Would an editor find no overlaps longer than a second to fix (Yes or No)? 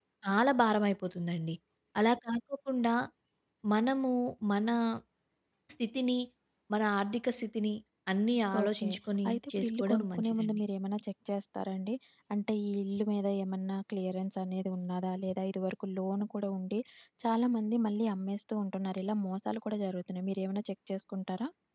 No